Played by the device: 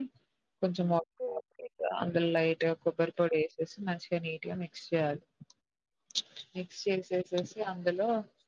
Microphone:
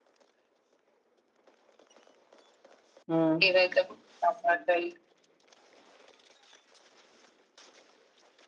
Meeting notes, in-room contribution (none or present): present